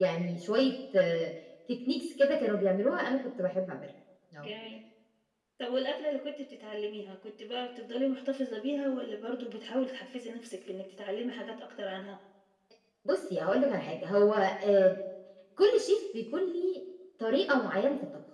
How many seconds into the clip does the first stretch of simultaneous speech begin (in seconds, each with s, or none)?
none